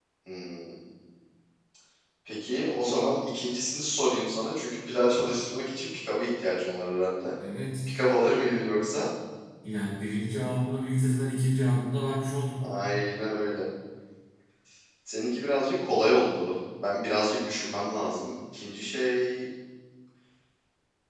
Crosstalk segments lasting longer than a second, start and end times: none

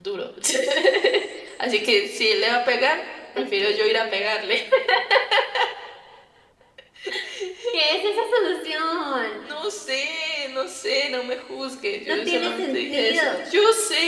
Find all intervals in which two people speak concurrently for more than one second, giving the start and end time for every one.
12.0-13.4

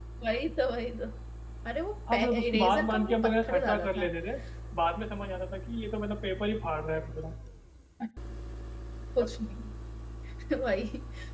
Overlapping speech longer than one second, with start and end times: 2.1-4.0

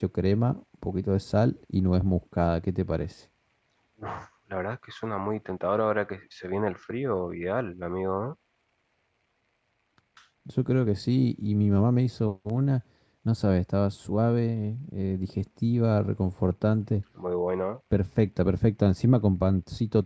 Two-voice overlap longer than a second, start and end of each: none

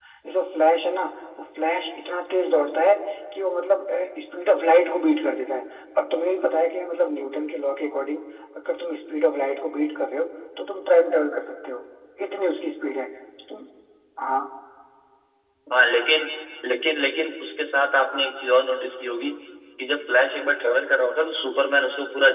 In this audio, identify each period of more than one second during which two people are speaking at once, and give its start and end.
none

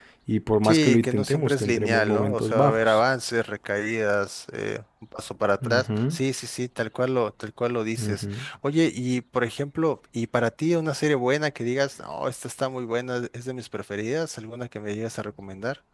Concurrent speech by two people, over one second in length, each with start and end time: 0.6-3.0

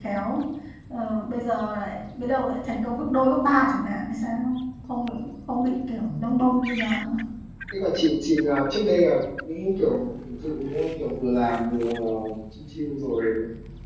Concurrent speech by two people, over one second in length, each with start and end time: none

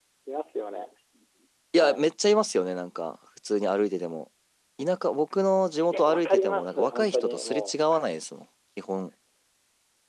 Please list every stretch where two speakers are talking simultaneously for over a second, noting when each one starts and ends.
5.9-7.9

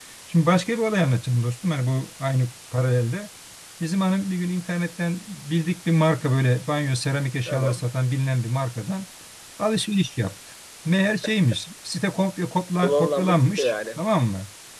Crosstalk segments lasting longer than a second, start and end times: 12.8-14.0

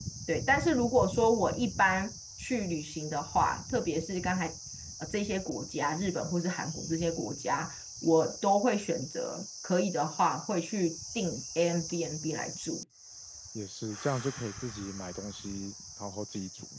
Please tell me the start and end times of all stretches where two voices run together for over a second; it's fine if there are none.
none

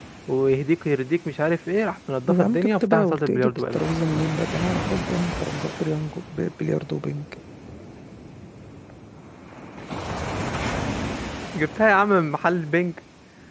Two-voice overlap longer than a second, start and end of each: 2.3-3.8

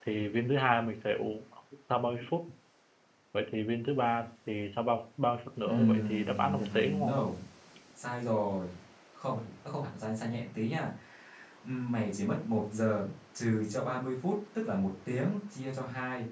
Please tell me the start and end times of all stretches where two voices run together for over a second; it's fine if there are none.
5.7-7.2

